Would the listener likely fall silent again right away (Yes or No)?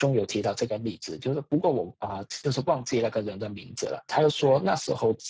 Yes